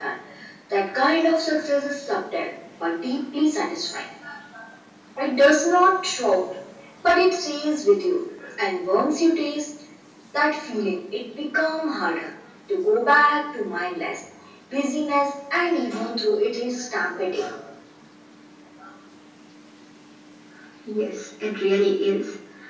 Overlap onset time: none

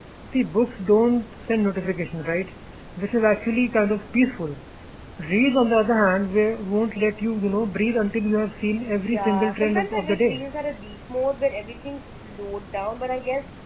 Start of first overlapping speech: 9.1 s

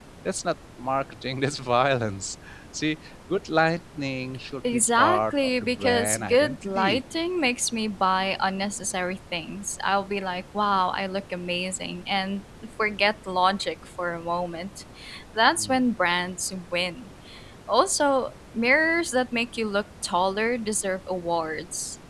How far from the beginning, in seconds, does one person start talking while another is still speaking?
4.6 s

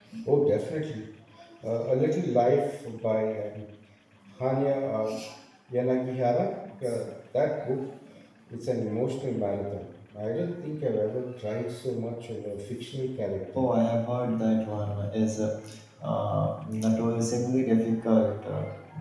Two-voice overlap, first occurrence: none

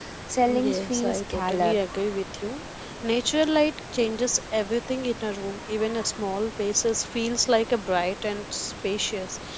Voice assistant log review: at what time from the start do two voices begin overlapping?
0.6 s

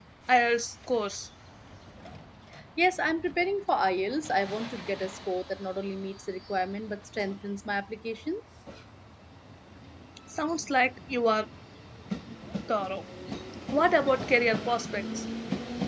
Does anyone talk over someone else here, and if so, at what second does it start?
none

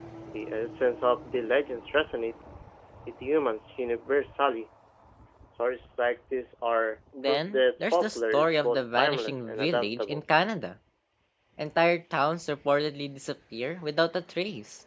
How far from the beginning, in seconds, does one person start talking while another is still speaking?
7.1 s

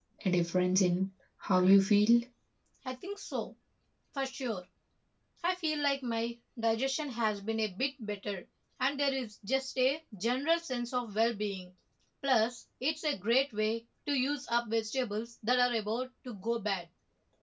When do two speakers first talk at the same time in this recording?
none

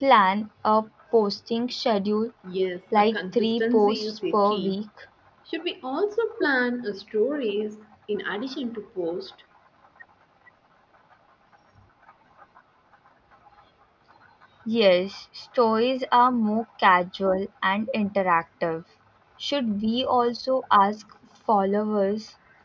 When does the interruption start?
3.0 s

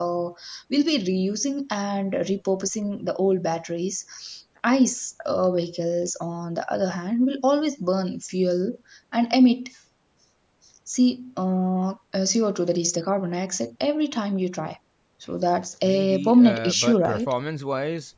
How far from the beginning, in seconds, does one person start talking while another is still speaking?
15.8 s

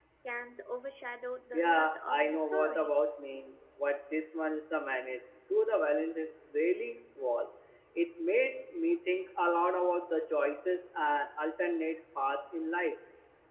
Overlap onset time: 1.5 s

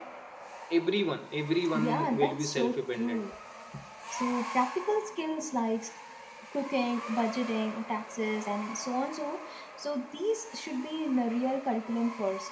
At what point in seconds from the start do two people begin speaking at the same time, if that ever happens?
1.7 s

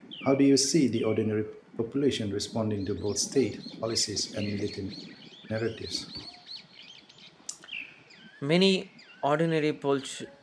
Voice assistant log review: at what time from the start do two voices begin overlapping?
none

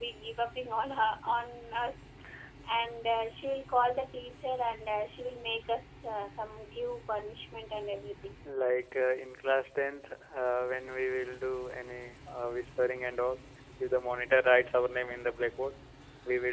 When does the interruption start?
none

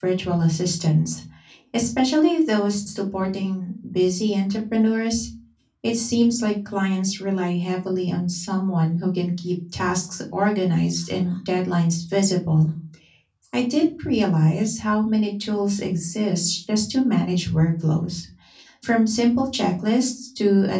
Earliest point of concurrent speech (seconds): none

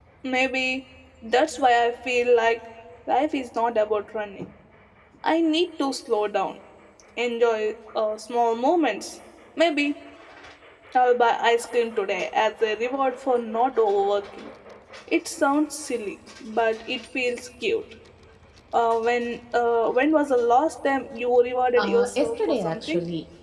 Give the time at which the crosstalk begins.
21.8 s

